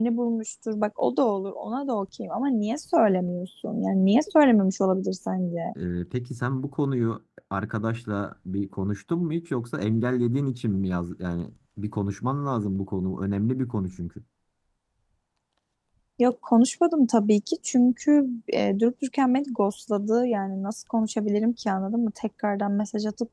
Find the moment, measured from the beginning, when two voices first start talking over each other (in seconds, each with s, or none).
none